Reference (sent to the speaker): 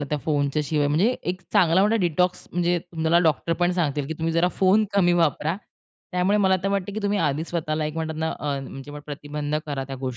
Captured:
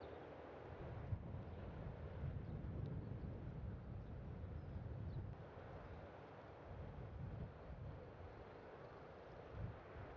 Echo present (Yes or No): No